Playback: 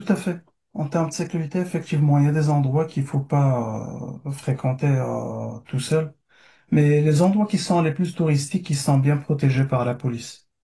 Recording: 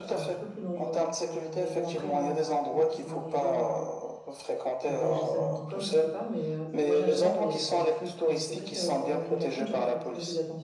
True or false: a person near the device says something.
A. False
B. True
B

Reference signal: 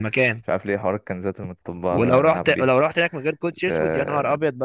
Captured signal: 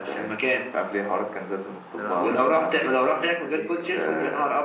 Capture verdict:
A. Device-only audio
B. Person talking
B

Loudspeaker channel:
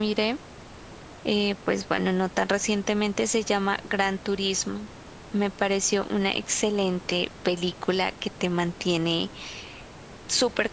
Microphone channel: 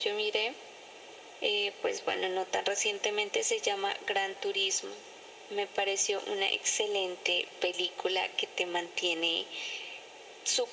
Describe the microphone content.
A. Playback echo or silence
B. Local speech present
A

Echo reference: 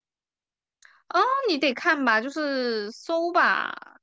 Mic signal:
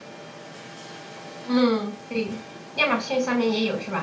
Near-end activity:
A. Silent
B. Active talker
B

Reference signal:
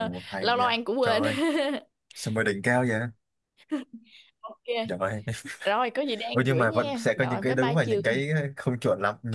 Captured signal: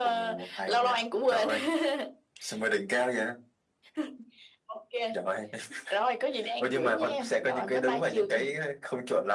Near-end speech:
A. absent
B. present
A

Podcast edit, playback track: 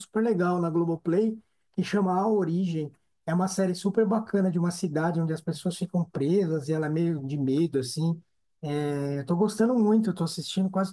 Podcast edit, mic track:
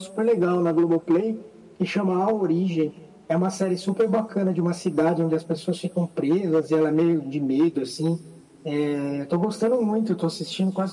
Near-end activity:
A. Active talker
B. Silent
B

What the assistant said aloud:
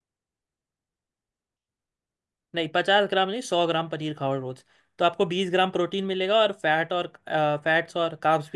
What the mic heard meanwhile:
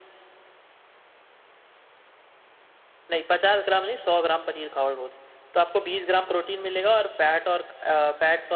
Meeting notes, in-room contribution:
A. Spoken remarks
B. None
B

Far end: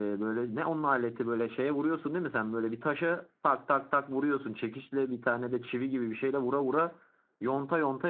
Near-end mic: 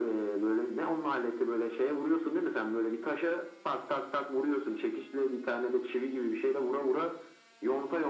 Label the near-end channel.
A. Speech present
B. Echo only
B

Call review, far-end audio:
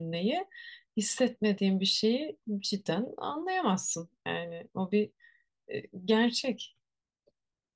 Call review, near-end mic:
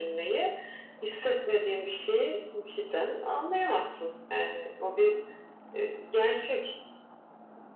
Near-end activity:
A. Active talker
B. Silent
B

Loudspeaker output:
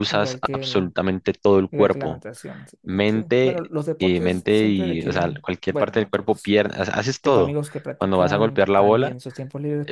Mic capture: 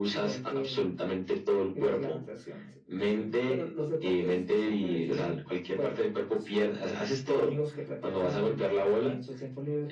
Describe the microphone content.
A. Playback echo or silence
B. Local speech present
A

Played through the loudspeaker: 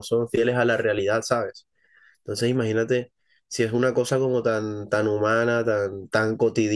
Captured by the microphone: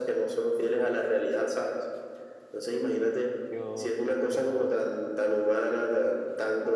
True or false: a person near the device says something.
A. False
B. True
B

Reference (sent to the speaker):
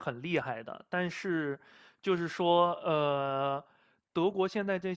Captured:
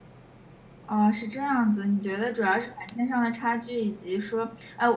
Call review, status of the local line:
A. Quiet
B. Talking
B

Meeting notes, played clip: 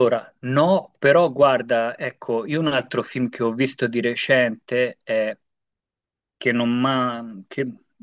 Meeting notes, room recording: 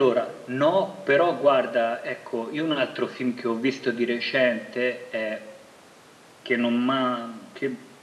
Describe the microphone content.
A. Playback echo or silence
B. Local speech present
A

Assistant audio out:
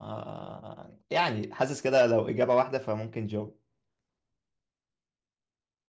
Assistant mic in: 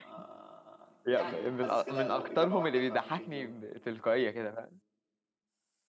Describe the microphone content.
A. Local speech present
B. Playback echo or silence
A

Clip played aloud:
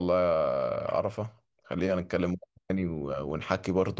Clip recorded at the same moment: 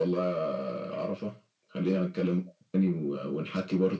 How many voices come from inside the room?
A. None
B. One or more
A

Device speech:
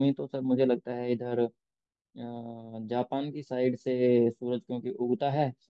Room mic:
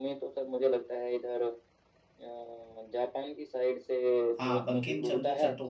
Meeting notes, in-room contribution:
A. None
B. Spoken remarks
B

